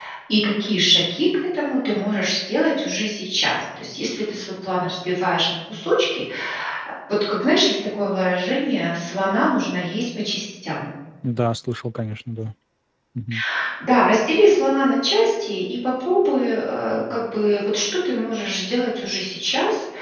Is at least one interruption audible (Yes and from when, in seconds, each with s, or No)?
No